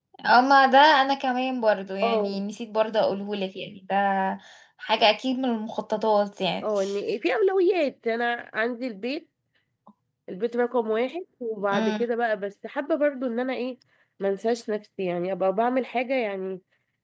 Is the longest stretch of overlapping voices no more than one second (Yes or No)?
Yes